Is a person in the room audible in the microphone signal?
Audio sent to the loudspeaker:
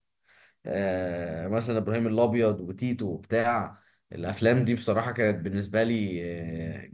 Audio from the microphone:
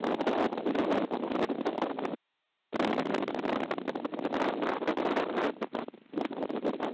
No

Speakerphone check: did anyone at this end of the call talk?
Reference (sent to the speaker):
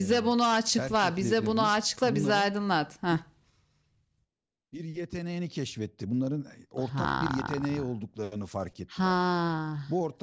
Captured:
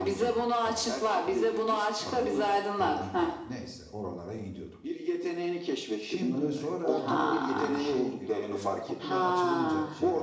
Yes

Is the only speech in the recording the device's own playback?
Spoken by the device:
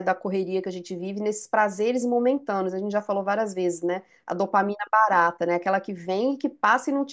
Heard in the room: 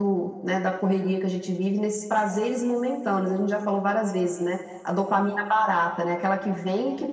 Yes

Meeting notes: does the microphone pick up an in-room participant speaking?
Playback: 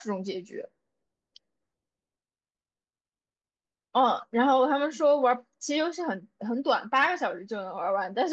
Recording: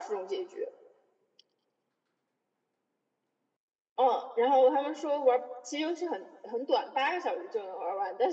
No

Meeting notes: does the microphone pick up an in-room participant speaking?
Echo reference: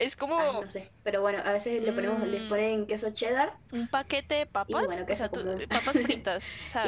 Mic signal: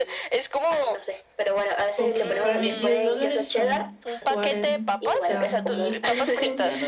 Yes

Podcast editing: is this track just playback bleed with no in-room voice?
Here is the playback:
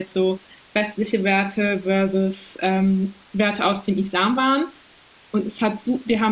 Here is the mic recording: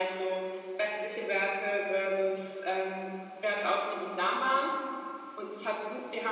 Yes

